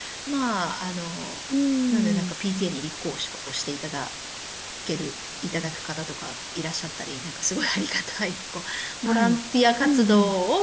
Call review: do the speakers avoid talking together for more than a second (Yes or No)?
Yes